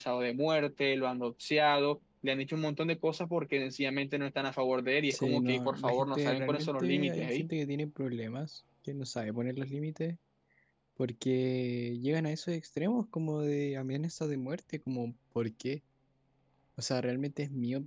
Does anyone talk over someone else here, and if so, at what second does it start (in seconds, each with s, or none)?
5.1 s